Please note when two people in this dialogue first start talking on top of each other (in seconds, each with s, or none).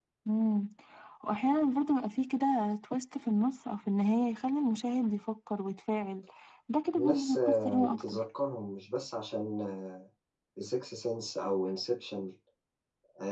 7.0 s